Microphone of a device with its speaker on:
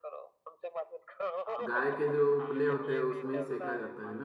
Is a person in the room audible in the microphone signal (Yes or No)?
Yes